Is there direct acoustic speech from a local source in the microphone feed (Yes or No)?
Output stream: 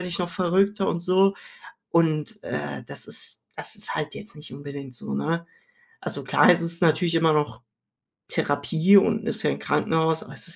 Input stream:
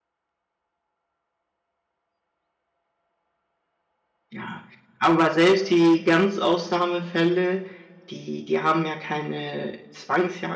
Yes